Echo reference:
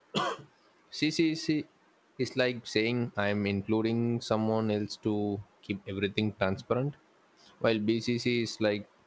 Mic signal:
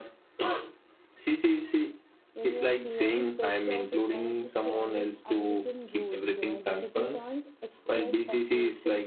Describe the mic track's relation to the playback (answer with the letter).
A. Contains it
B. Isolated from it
A